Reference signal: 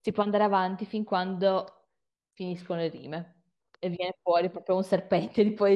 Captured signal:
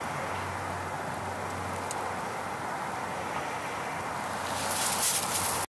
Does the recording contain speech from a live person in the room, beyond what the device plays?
No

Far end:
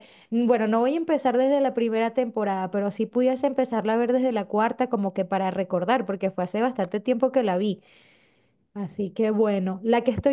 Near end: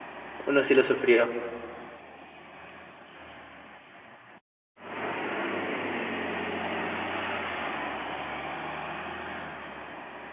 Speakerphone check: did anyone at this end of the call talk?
Yes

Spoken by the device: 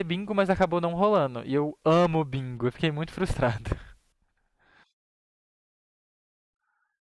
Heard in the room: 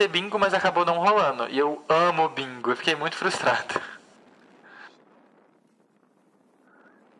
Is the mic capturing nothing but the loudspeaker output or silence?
Yes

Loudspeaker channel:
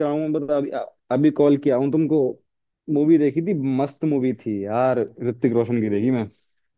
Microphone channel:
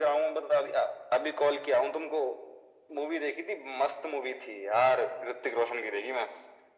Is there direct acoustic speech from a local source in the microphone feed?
No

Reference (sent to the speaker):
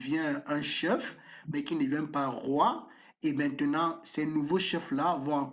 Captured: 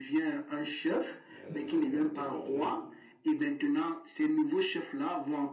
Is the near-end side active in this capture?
Yes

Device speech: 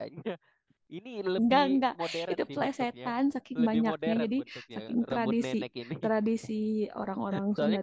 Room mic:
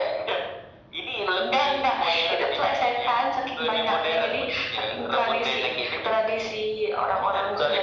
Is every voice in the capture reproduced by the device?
Yes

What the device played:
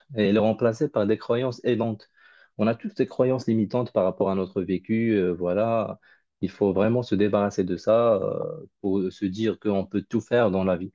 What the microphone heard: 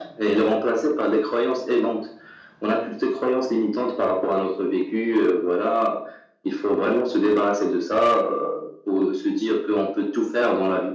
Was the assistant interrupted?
No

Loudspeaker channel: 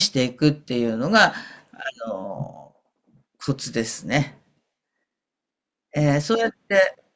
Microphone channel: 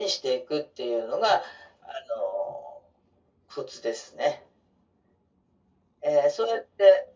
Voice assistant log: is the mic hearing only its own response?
Yes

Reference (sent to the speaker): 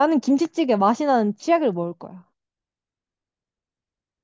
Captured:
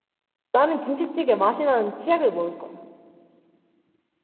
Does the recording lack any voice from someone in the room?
Yes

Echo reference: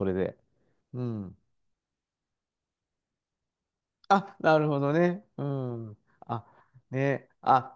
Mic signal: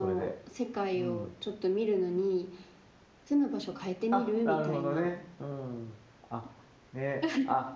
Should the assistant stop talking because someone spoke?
Yes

